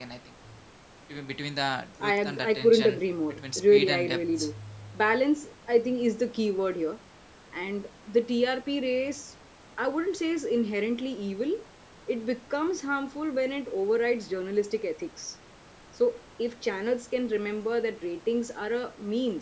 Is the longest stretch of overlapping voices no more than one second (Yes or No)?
No